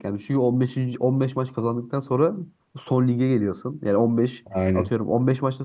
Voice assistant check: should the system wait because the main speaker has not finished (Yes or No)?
Yes